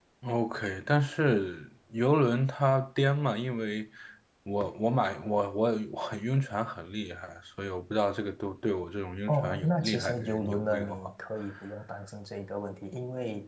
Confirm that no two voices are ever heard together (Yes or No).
No